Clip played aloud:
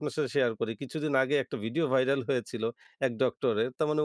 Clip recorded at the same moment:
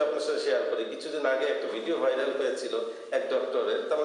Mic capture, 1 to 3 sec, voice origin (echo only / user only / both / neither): echo only